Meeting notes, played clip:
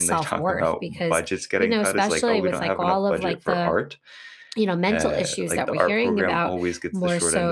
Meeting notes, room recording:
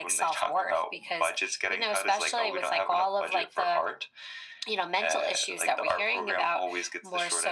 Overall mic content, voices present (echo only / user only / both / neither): echo only